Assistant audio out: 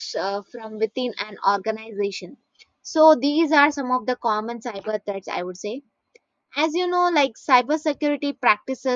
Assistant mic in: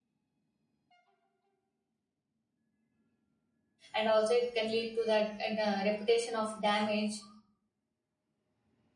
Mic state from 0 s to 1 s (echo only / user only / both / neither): neither